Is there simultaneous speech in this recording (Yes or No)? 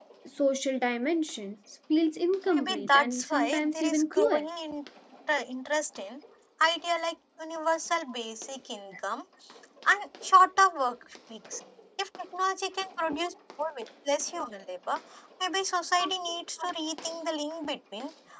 Yes